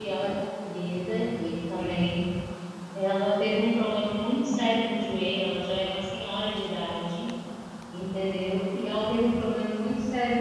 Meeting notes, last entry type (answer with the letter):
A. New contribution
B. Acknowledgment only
B